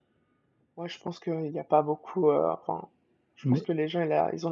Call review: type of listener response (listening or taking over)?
listening